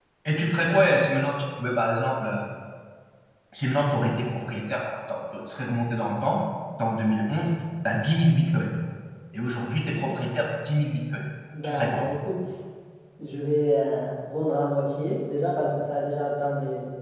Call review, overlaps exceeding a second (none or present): none